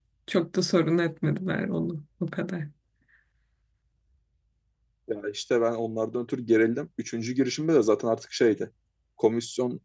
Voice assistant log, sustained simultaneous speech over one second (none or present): none